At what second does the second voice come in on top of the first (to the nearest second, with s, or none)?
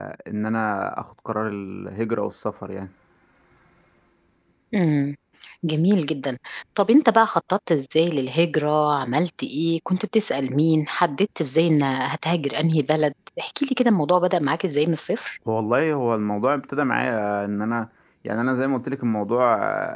none